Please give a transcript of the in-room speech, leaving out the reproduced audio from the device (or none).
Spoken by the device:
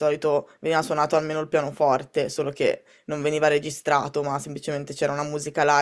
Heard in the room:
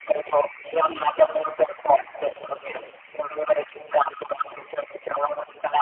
Sì,